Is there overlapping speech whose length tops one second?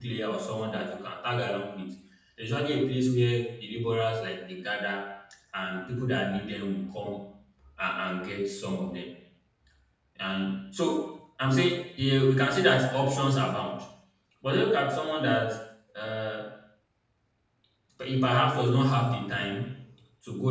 No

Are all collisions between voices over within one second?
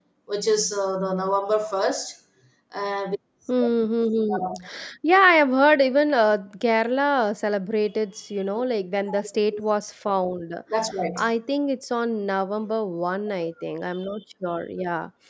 Yes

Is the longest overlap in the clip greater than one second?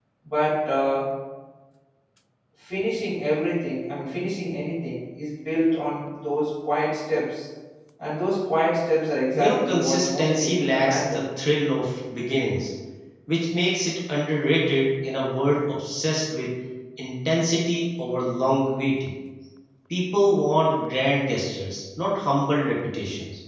Yes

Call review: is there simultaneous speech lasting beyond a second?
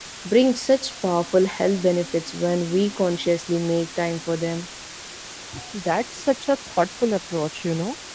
No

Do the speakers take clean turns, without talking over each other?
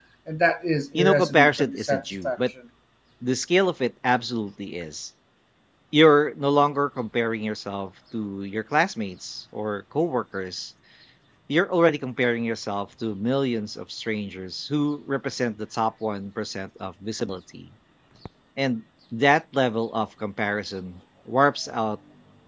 No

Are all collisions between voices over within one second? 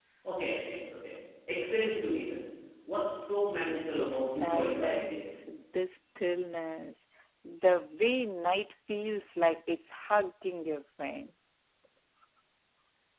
No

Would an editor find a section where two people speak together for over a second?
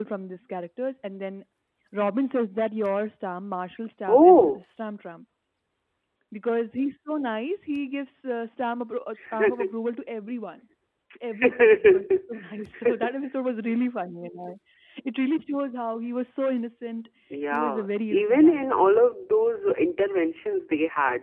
Yes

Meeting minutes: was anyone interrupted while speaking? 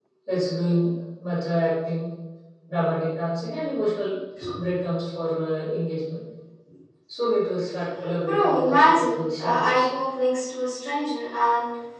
Yes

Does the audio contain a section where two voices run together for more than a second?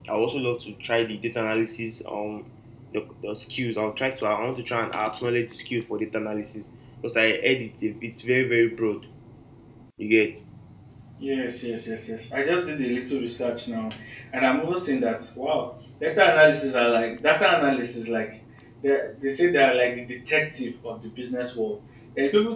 No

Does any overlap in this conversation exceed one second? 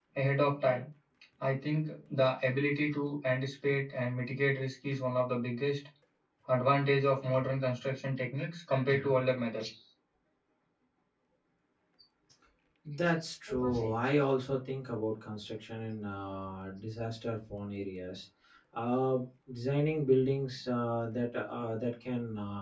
No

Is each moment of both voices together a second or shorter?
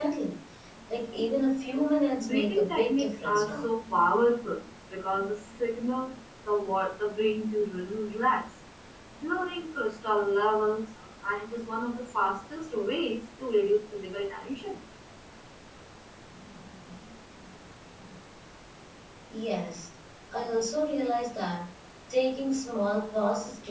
No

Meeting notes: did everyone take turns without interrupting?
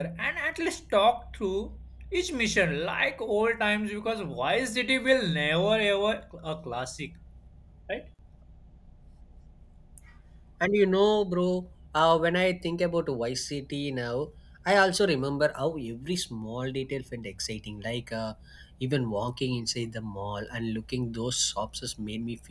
Yes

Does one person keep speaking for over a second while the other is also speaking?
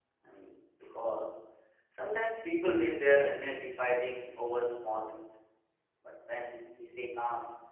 No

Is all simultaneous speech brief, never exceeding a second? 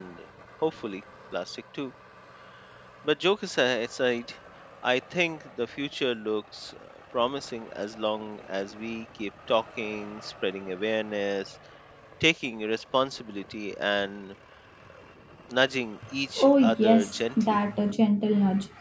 No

